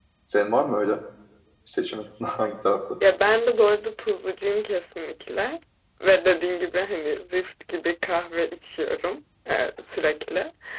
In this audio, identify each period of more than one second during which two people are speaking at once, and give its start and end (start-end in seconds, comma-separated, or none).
none